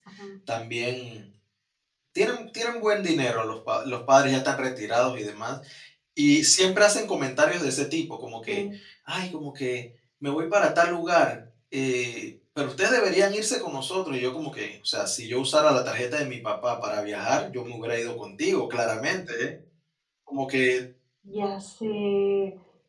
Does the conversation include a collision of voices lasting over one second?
No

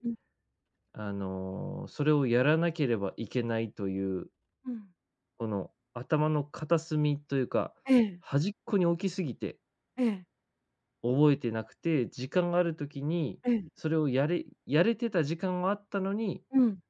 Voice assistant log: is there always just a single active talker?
Yes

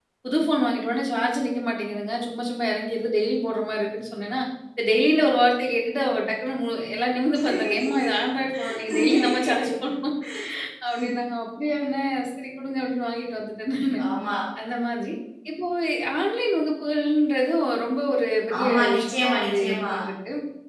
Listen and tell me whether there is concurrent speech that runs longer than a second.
Yes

